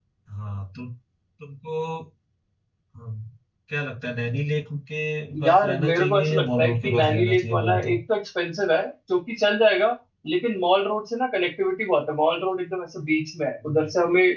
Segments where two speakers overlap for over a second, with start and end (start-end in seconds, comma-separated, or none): 5.4-8.0